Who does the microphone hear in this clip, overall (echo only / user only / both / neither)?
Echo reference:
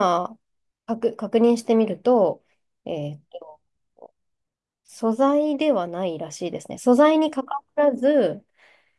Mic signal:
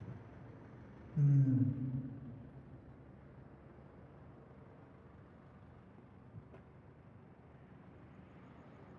user only